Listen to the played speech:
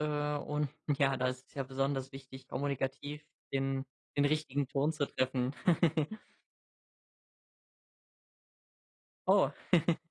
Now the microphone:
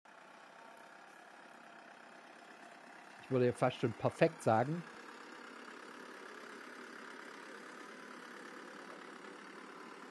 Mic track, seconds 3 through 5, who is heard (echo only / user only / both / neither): user only